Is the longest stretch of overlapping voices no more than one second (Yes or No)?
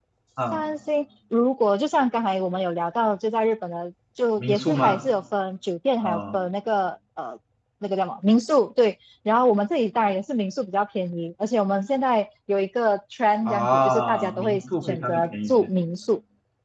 No